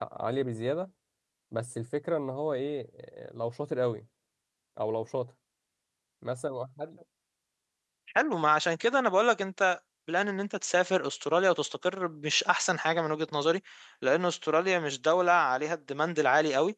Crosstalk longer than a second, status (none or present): none